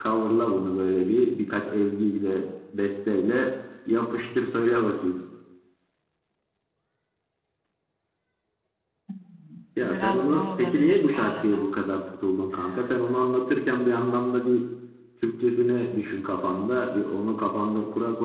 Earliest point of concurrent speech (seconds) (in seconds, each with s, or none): 9.8 s